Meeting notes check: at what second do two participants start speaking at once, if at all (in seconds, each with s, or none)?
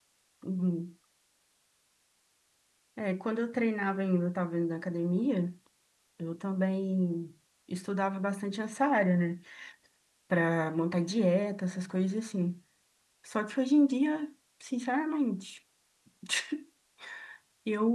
none